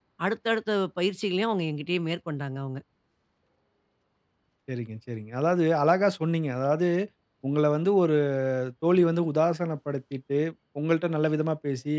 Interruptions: none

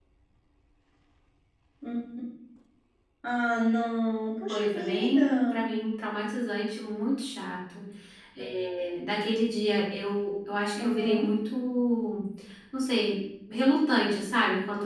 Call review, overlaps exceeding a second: present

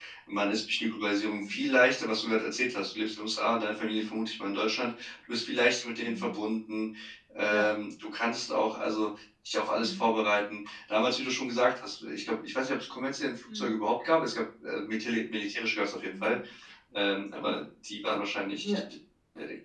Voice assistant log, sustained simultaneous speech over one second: none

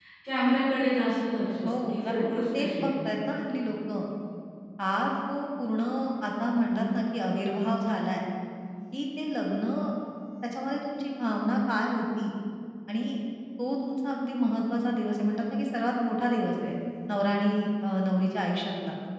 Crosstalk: present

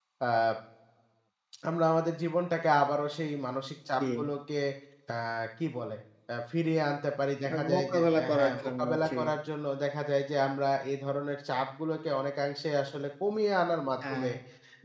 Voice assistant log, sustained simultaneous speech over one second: present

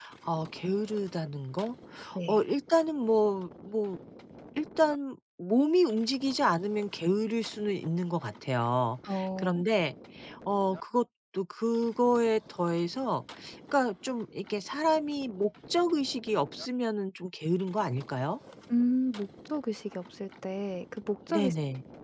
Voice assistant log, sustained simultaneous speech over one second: none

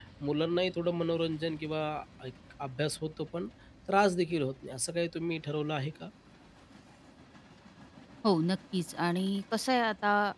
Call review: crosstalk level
none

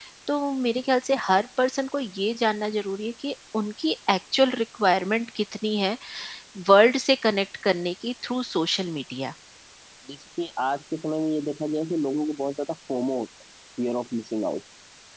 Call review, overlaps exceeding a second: none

